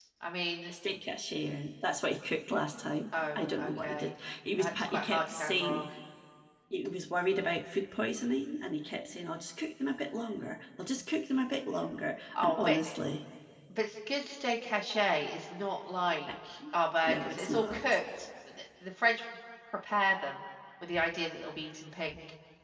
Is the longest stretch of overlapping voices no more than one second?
No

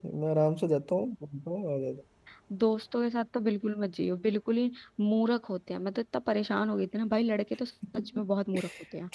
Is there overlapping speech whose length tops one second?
No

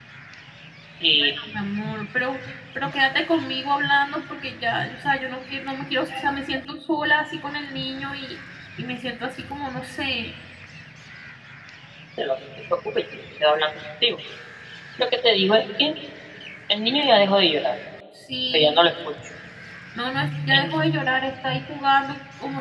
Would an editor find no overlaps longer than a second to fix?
Yes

